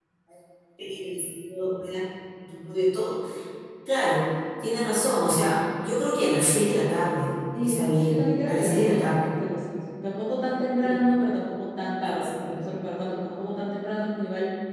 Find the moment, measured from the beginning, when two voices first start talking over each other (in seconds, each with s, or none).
7.6 s